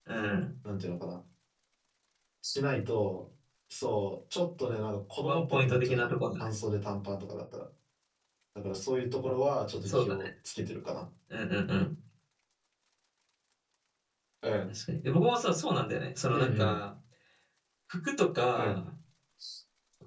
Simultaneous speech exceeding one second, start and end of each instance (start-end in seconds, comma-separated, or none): 5.2-6.5